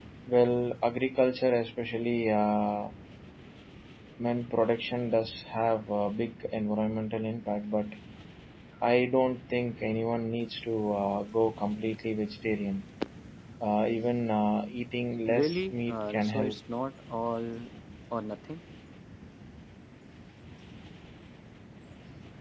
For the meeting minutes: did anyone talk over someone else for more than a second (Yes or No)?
Yes